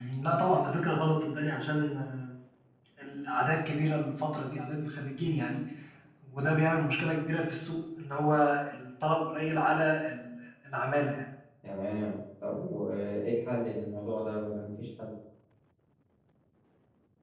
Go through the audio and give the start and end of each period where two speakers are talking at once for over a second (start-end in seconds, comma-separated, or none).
none